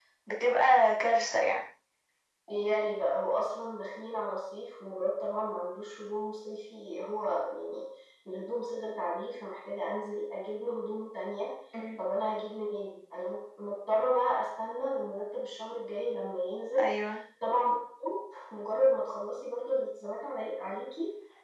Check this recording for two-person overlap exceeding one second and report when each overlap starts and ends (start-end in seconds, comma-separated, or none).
none